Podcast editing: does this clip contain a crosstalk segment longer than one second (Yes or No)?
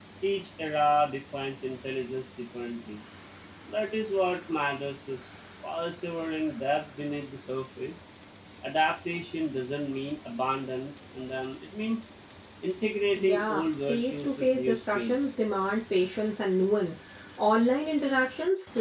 Yes